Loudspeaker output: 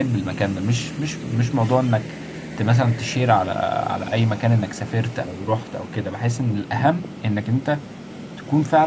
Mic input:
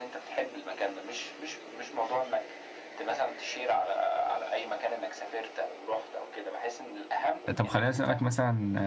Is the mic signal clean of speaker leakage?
No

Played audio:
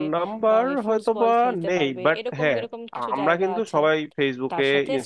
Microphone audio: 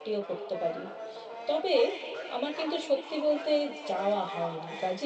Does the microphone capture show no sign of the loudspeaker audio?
No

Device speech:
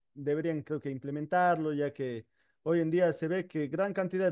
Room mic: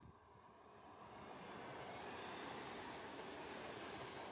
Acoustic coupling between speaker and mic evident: No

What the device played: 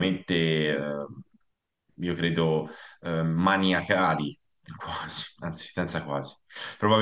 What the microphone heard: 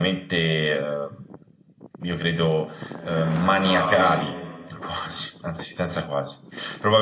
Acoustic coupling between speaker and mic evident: Yes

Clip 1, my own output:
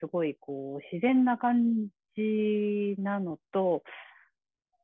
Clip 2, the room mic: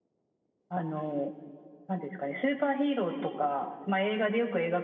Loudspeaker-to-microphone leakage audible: No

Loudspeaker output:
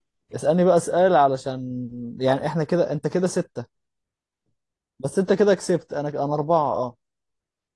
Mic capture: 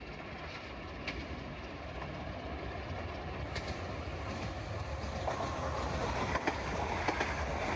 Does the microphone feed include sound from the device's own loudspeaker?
No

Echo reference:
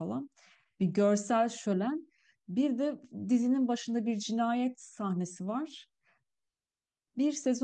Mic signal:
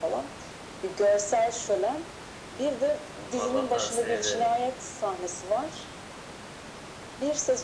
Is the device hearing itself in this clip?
Yes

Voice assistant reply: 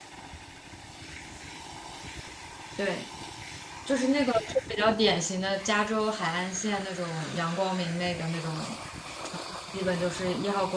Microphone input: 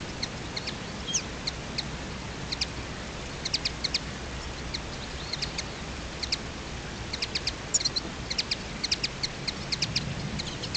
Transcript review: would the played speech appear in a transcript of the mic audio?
No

